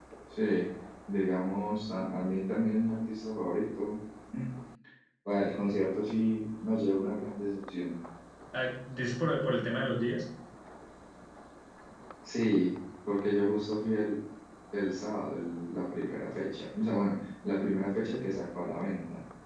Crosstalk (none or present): none